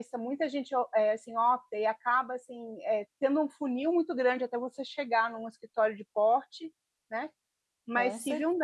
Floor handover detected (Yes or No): No